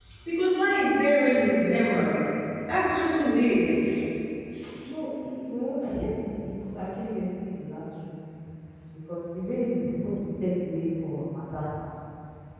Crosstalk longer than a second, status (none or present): none